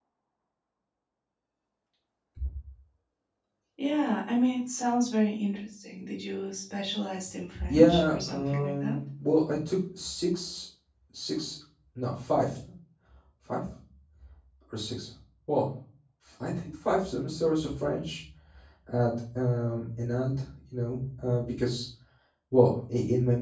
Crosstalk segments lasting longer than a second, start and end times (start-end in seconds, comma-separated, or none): 7.7-9.0